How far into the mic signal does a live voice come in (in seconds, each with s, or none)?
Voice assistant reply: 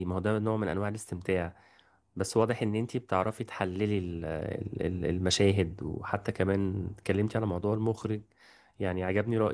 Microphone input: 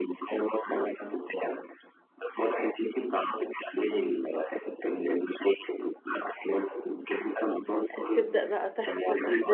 7.9 s